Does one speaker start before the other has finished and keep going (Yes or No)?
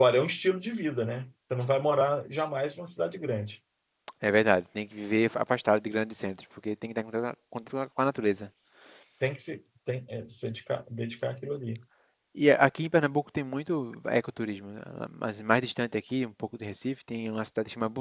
No